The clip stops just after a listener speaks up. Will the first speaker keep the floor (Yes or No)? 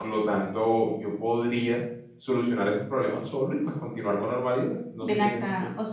No